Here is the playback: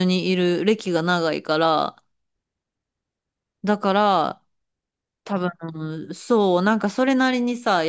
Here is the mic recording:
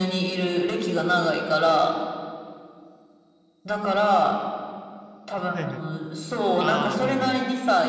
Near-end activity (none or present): present